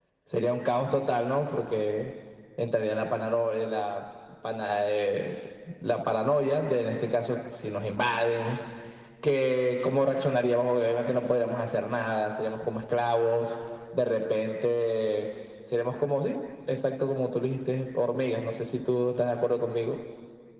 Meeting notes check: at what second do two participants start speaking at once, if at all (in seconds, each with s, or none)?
none